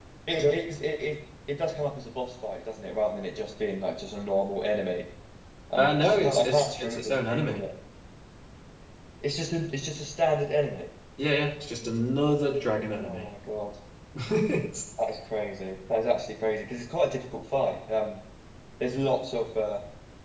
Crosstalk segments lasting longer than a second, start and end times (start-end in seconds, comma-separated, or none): 5.8-7.6